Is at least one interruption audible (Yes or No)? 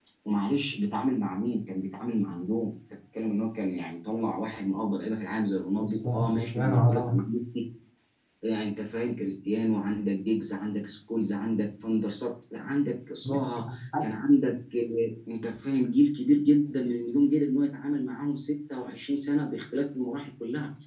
Yes